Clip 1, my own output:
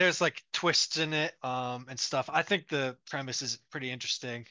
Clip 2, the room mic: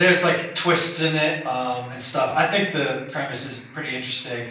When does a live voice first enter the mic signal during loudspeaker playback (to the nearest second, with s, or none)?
none